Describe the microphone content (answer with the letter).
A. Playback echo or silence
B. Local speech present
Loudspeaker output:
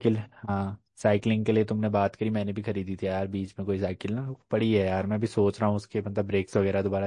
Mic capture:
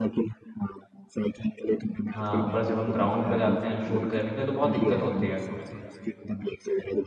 B